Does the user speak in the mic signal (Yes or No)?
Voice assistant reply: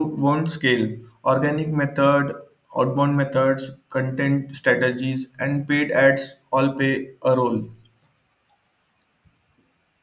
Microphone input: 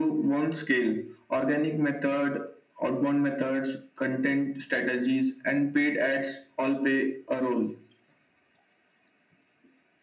No